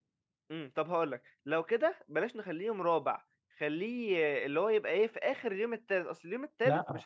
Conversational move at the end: taking over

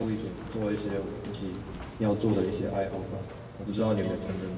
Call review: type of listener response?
taking over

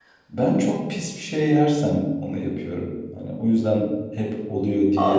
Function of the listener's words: taking over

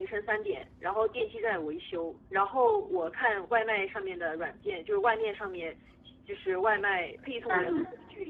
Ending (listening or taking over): listening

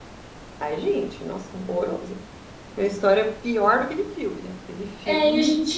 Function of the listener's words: taking over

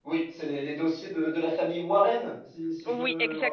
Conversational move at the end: taking over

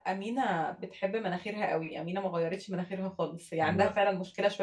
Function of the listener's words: listening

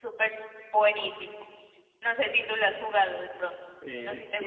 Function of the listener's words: taking over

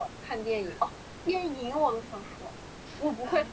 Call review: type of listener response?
listening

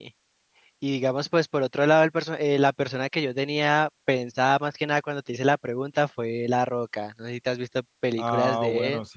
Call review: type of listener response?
taking over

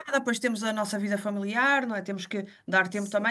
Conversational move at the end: listening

